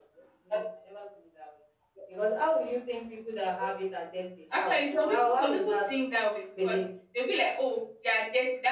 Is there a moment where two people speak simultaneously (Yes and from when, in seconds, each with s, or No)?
Yes, from 4.5 s